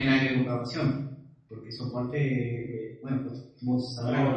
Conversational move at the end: taking over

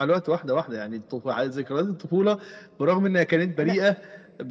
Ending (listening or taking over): listening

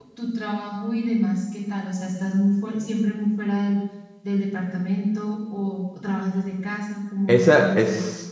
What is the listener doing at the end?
taking over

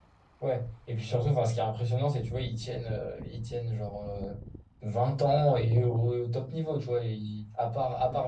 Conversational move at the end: listening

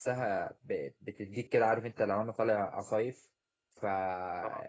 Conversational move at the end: listening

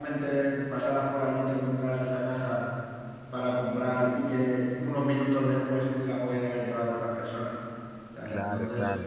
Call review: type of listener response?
taking over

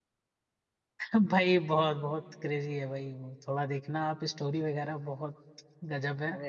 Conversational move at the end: listening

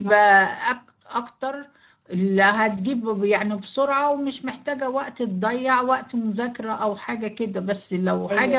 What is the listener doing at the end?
listening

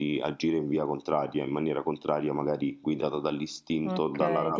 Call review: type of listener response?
taking over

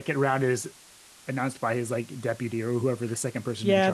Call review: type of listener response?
taking over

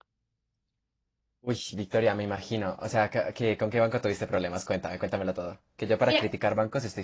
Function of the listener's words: listening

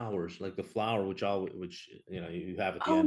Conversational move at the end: taking over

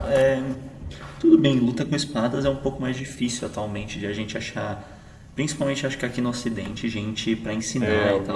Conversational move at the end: taking over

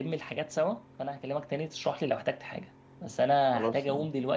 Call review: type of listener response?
listening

